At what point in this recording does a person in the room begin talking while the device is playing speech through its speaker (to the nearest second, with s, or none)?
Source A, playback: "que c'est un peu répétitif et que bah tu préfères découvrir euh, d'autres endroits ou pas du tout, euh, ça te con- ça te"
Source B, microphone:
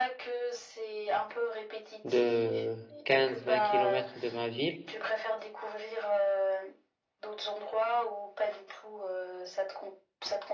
2 s